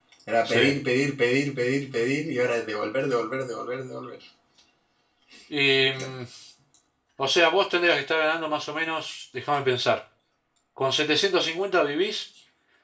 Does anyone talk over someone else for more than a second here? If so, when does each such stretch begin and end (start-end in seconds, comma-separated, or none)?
none